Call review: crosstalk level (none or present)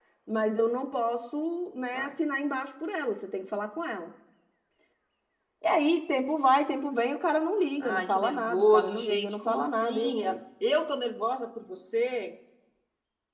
present